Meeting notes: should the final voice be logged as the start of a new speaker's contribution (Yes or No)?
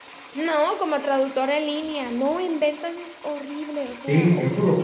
Yes